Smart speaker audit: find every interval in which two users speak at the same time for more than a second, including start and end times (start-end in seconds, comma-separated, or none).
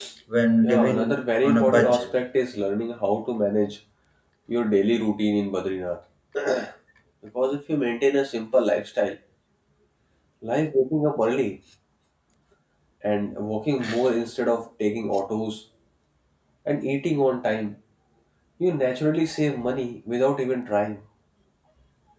0.6-2.2